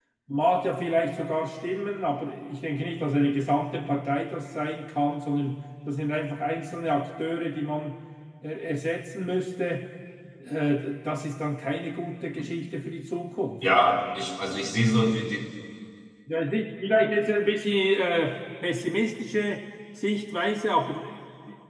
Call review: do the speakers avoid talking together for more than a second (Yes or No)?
Yes